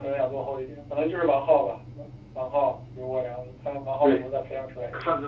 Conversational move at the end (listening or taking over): taking over